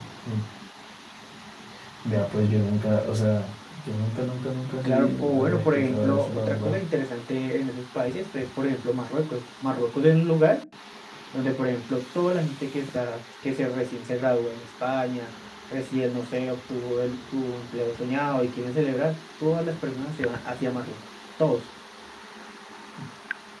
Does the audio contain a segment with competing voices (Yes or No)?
Yes